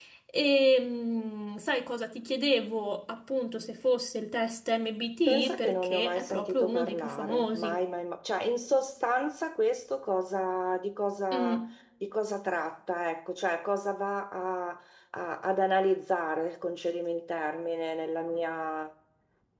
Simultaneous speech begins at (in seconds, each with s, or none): 5.3 s